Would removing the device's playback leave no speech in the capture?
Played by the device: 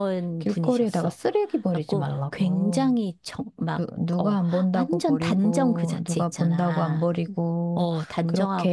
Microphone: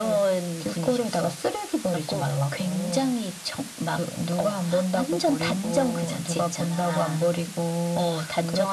Yes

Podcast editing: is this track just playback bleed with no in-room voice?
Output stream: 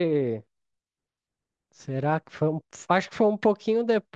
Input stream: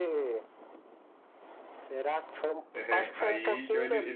No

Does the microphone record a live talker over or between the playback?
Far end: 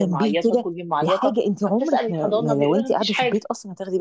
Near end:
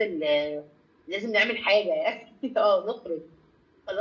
Yes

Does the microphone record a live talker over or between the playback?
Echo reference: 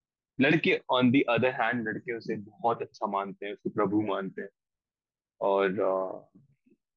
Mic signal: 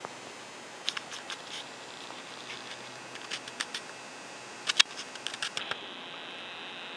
No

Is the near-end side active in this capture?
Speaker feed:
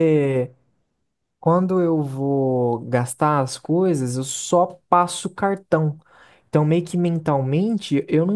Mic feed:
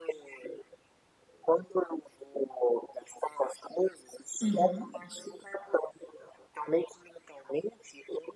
Yes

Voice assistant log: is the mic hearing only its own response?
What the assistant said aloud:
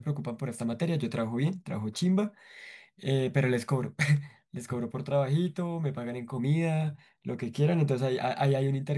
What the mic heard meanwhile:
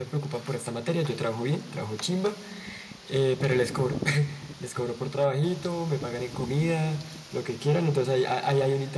Yes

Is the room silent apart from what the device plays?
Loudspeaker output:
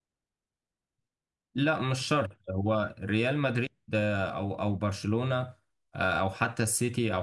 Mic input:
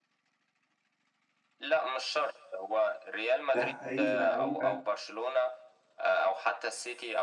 No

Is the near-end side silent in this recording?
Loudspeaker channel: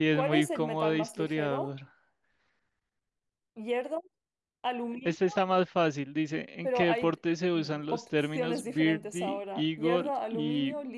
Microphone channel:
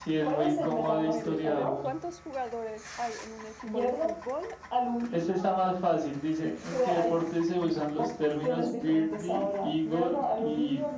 No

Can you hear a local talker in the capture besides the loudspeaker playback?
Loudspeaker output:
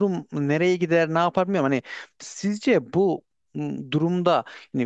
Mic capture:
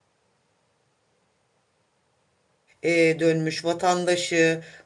Yes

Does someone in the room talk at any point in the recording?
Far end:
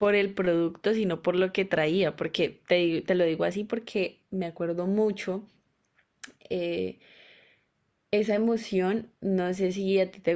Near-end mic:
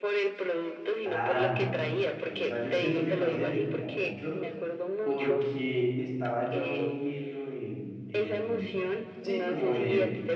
Yes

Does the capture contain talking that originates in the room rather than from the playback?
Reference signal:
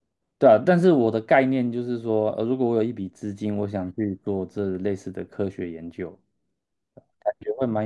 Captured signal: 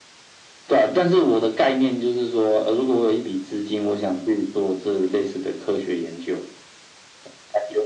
No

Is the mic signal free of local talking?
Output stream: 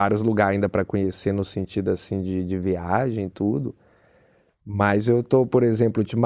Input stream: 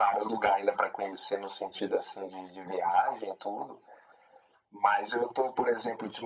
Yes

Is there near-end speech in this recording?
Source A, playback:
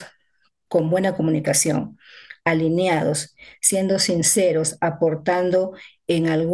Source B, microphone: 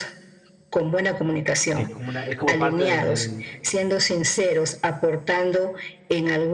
Yes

